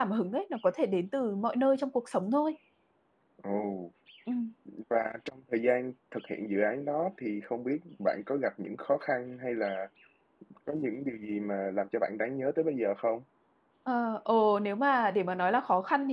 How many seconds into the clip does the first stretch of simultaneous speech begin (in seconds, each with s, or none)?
none